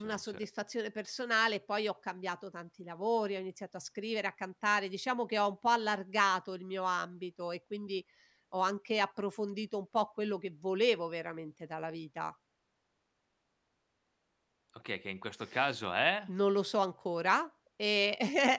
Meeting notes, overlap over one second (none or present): none